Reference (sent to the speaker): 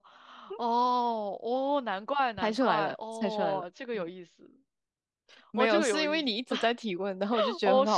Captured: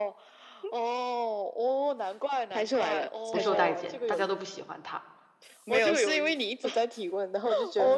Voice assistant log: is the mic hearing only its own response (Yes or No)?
No